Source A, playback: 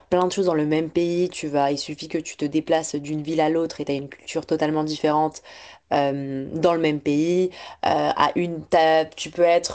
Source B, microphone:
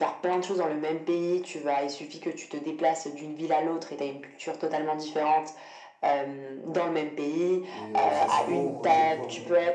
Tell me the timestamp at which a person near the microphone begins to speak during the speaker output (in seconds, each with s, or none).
7.7 s